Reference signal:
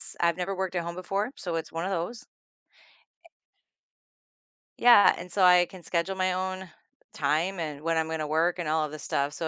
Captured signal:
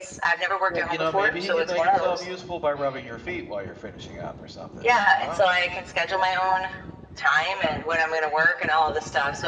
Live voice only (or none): Well, you know, maybe he could make himself useful by rubbing your feet while you're finishing up or something, you know?